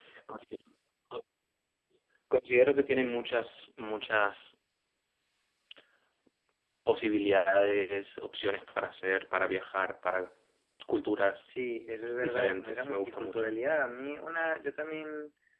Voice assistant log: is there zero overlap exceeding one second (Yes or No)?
No